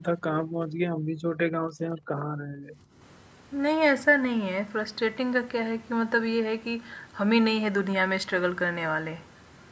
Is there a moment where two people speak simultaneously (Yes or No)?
No